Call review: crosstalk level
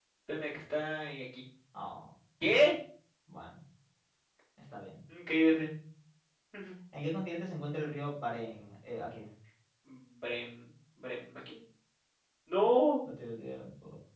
none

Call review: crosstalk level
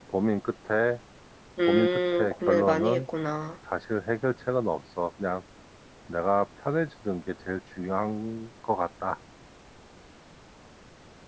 present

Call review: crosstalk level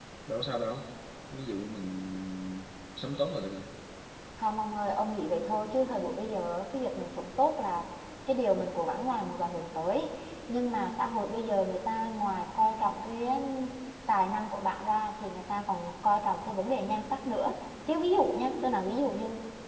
none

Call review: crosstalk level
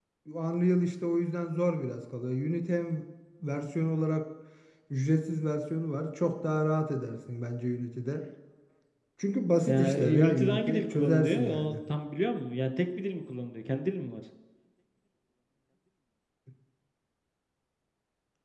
present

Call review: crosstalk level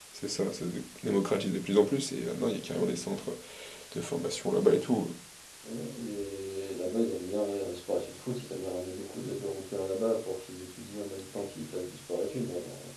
none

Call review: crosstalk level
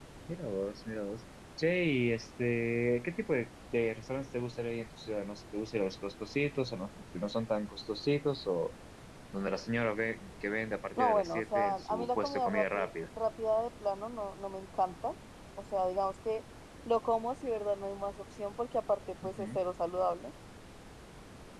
present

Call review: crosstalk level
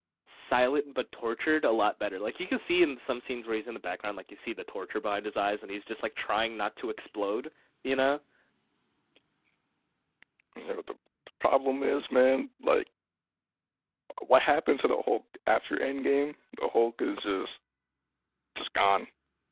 none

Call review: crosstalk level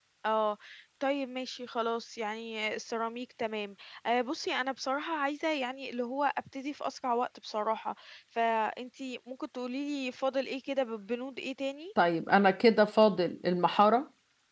none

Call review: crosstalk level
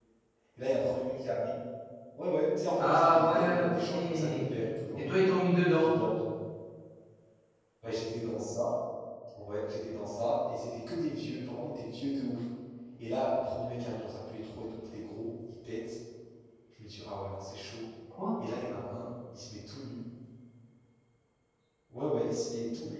present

